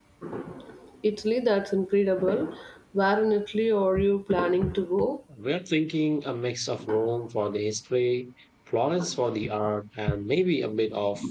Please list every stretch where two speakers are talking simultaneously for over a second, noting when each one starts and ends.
none

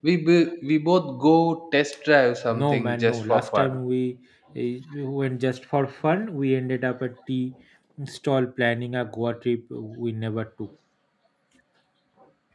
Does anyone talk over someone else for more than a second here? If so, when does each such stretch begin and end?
2.5-3.8

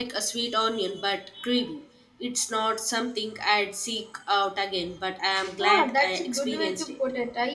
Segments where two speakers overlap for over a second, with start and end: 5.6-6.9

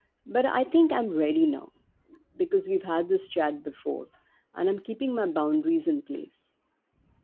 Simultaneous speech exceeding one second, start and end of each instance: none

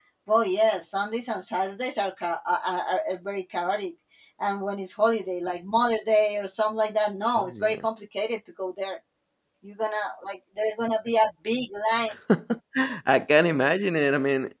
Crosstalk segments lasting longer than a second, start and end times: none

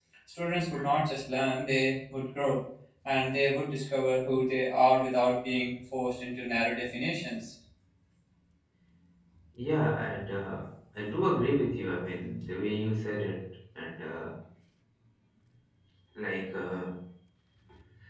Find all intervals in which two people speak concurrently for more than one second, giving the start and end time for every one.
none

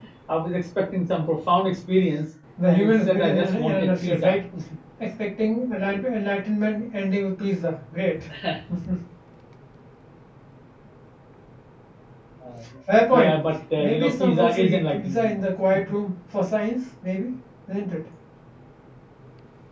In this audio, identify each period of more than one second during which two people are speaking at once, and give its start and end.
2.7-4.4, 13.8-15.3

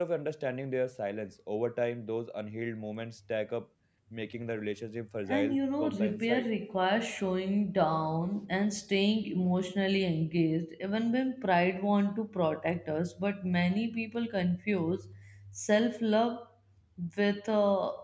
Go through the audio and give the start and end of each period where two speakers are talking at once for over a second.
5.3-6.5

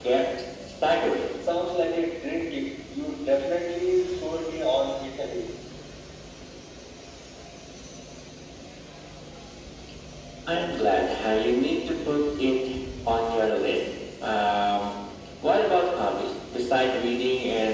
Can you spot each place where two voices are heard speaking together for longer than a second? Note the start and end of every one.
none

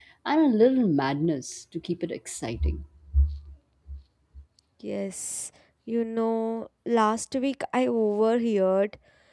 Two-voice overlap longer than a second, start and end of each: none

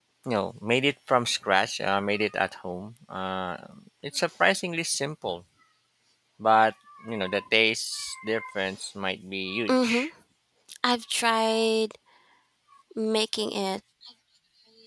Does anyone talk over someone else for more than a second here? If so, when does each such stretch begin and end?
none

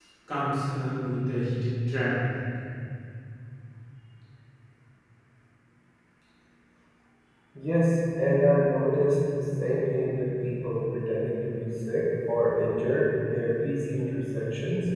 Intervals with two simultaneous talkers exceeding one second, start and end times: none

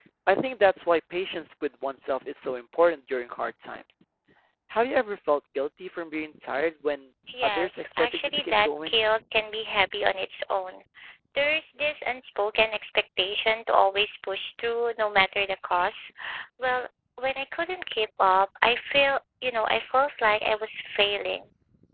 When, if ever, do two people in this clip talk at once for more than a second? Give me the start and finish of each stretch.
7.3-9.0

